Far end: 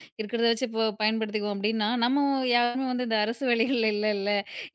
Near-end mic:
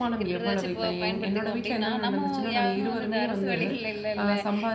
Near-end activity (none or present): present